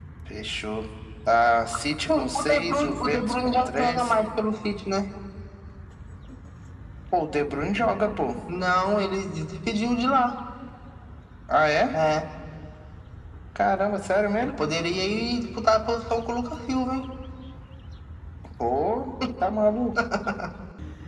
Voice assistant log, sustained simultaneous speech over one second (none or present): present